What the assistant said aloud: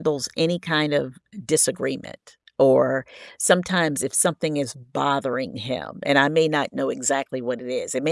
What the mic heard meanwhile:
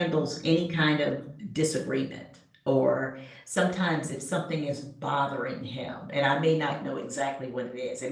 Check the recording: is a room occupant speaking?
No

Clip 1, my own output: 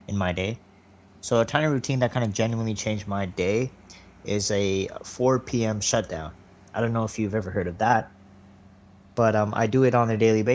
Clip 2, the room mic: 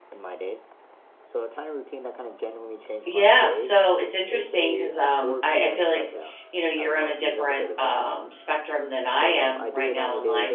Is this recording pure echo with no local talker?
No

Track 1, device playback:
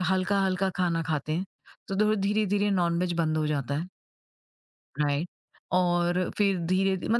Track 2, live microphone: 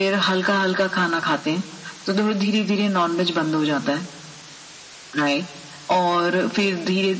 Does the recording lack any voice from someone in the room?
Yes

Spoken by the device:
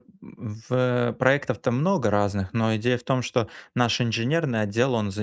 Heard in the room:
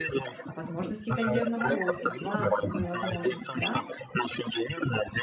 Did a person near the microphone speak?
Yes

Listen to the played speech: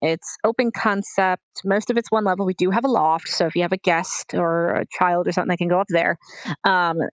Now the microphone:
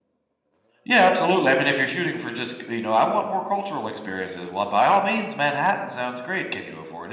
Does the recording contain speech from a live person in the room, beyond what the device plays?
Yes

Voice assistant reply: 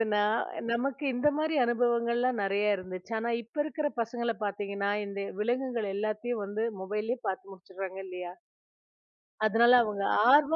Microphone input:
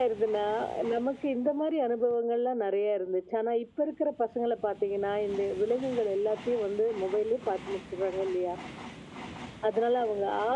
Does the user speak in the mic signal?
No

